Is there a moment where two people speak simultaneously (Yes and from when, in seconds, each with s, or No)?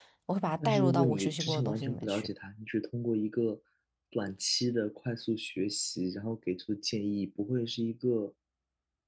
Yes, from 0.6 s